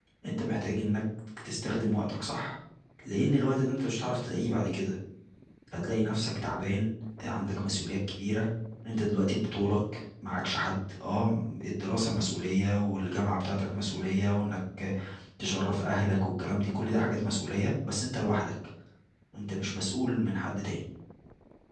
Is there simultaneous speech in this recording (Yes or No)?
No